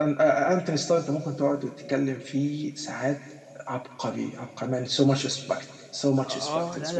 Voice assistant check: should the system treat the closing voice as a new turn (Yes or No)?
Yes